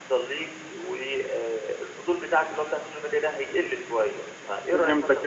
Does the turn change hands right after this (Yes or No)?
Yes